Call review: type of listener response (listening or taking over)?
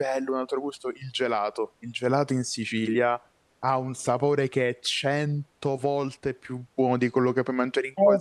taking over